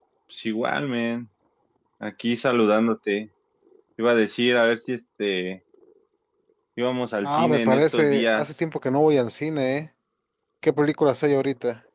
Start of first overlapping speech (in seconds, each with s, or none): 7.2 s